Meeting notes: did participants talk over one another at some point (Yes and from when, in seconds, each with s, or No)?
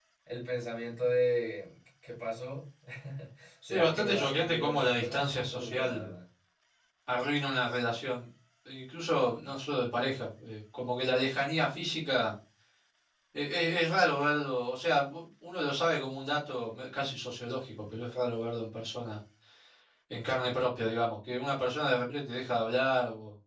Yes, from 3.6 s